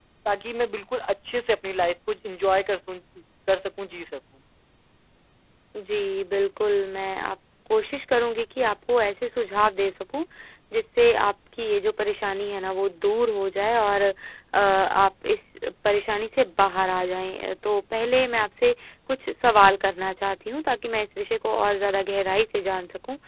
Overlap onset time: none

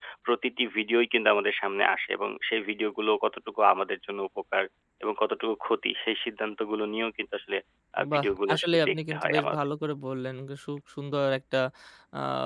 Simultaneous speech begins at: 8.1 s

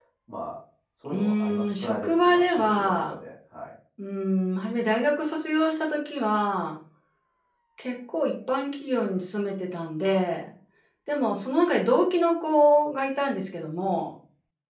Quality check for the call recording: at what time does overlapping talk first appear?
1.1 s

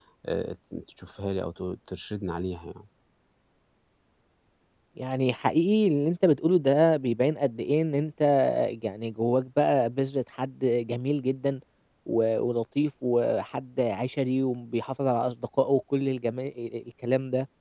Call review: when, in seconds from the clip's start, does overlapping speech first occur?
none

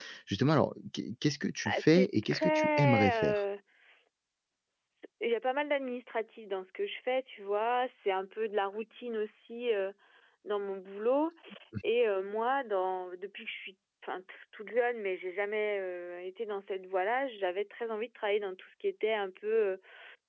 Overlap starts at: 1.6 s

